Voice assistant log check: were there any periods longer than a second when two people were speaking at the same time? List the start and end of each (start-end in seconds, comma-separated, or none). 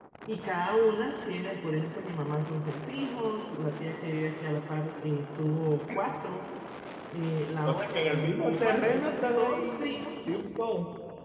7.6-10.0